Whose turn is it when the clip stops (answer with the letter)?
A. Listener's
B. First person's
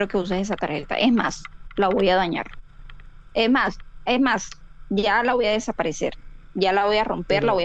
B